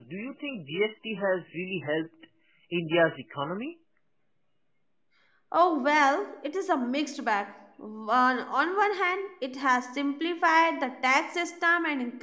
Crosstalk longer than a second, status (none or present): none